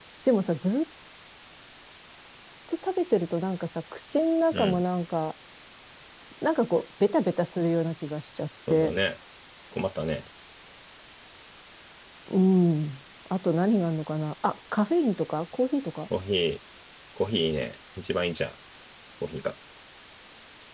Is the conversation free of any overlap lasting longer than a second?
Yes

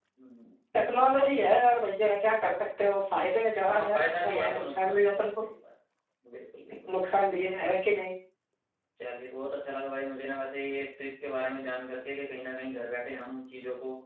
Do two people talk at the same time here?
Yes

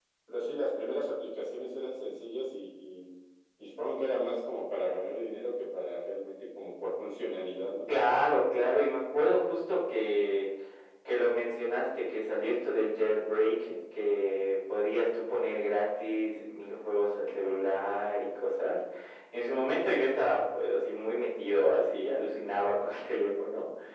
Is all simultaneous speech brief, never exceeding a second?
Yes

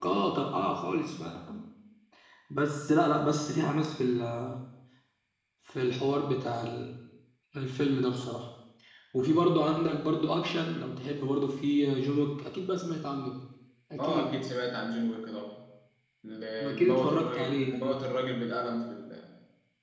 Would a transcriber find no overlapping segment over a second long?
No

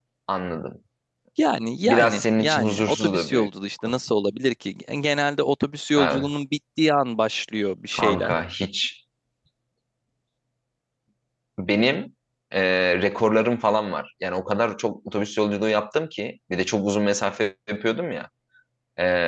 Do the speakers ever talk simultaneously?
Yes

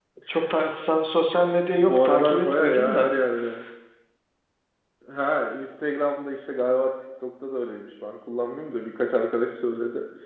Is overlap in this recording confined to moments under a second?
No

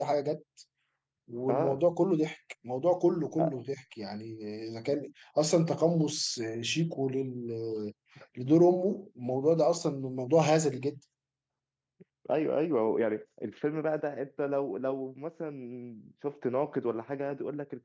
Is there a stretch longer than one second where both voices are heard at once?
No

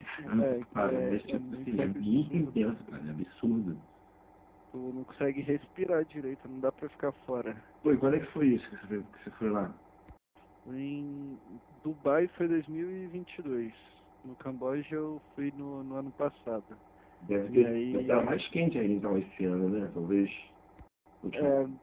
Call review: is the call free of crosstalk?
No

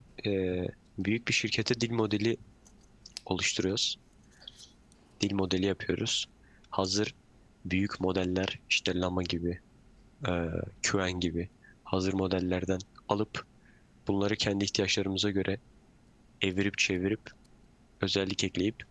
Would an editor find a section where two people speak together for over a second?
No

